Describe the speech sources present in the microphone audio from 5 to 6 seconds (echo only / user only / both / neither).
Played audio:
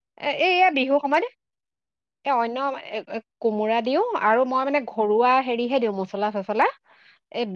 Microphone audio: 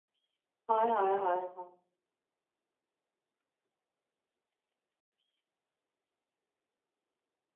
neither